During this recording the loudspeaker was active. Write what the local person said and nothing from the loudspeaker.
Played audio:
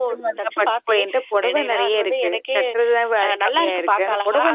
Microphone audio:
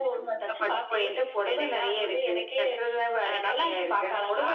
none

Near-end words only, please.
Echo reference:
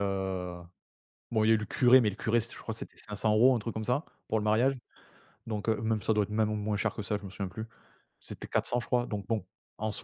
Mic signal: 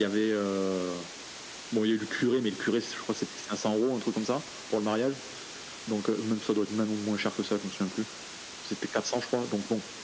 none

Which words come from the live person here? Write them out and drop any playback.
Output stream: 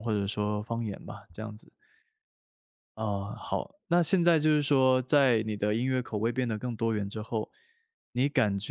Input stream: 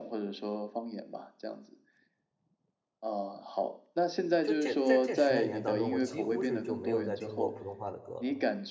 就这在这十来年当中，我几乎是就没有再听过普通话的歌了

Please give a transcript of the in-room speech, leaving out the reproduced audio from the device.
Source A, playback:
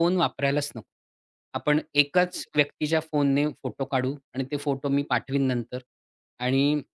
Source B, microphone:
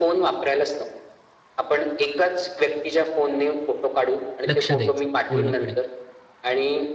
लक्ष द्यायचं पूर्णपणे.

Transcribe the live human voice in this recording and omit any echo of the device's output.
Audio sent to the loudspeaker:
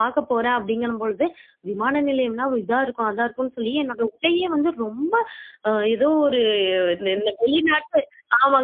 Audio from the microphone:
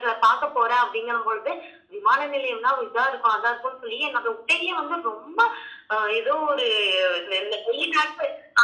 none

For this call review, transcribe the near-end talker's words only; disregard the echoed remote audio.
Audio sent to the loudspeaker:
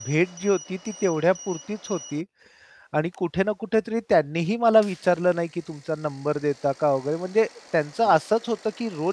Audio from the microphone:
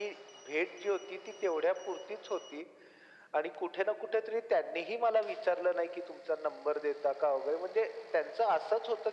none

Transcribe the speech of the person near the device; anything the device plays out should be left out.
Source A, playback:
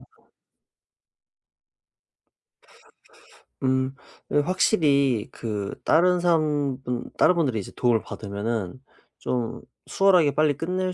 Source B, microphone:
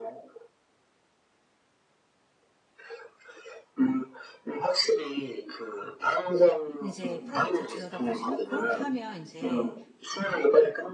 인제 프로젝트를 들여다보시면 고렇게 하면 인제

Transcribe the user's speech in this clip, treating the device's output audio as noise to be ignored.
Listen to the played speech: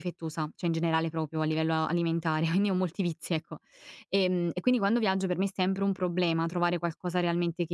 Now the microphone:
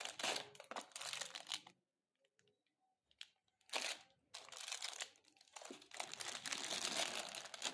none

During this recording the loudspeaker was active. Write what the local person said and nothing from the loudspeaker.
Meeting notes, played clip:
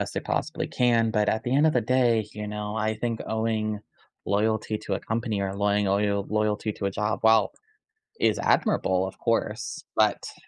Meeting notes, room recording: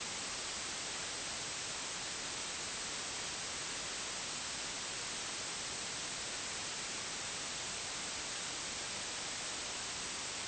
none

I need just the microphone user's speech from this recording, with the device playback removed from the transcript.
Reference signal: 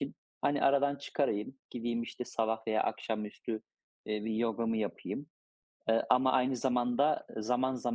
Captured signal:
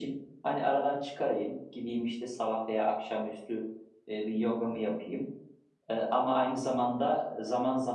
none

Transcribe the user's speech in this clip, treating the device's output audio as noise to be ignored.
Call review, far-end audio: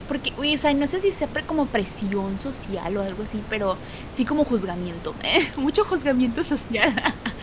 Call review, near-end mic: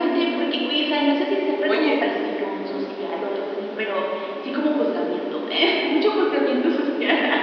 Oye

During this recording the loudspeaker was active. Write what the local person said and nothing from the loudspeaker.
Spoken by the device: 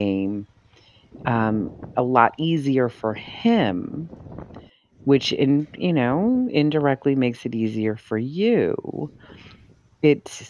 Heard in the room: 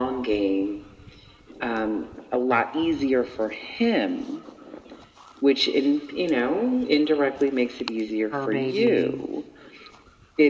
fur babies.

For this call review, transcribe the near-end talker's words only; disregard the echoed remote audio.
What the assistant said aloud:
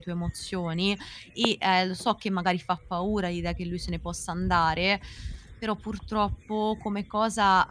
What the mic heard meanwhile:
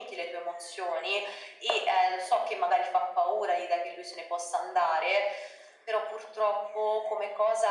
none

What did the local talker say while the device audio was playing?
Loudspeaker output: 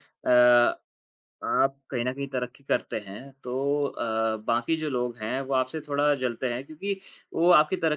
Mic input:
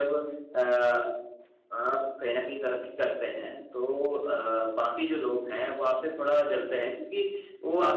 none

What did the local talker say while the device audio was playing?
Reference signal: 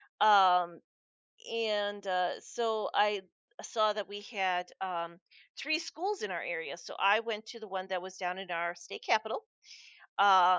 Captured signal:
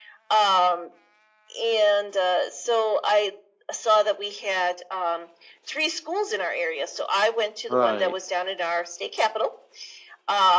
Right.

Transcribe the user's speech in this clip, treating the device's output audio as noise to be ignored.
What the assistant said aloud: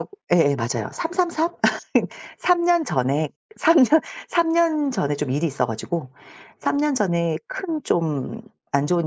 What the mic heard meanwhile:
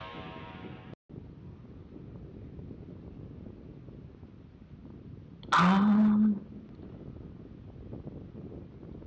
아.

